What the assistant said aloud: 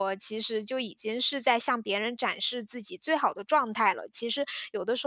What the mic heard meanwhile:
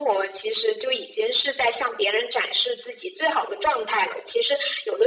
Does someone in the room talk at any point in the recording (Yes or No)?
No